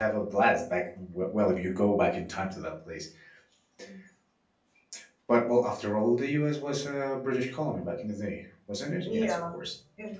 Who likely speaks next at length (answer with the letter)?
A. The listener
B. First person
A